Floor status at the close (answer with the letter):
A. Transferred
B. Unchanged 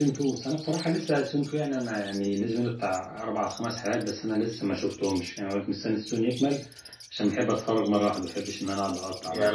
A